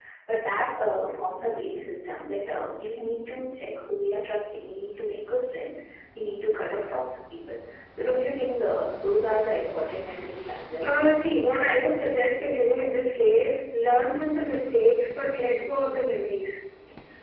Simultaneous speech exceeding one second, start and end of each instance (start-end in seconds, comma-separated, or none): none